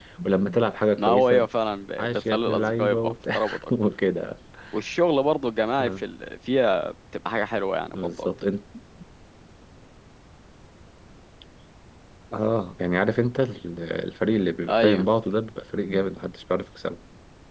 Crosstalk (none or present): present